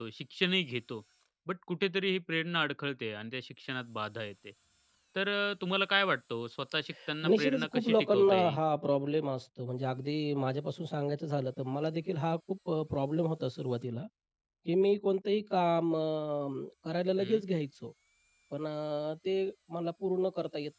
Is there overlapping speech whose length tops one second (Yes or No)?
Yes